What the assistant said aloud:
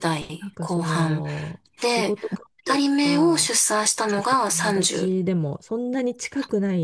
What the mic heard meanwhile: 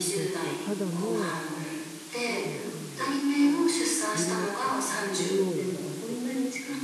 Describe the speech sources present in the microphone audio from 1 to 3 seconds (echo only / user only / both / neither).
both